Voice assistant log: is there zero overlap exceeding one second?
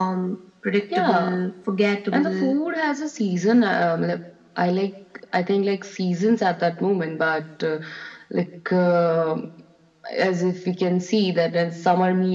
Yes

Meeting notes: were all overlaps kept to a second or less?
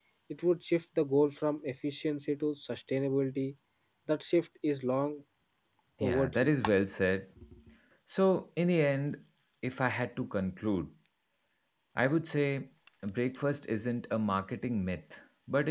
Yes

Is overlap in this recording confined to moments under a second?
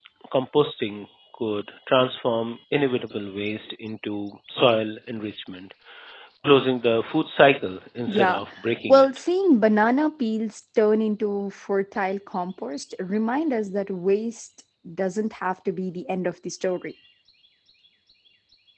Yes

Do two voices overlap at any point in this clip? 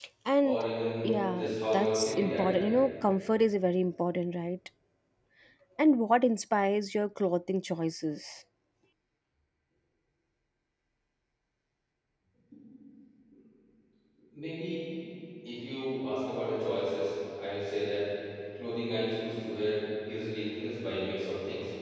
Yes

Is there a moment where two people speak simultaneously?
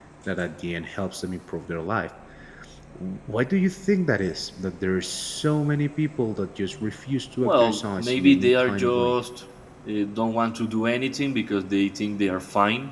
Yes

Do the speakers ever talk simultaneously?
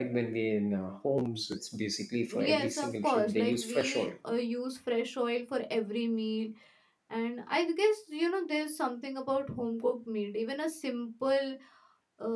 Yes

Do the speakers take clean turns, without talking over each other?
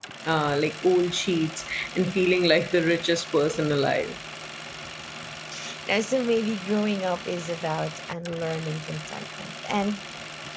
Yes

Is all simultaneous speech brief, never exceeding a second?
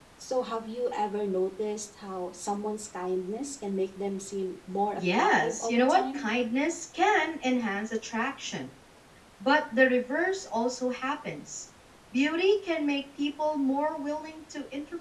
No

